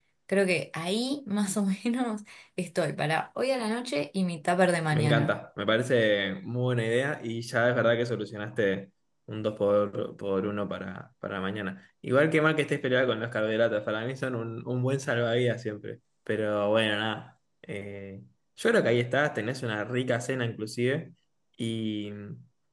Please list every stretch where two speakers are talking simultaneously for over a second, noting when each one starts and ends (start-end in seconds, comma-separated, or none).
none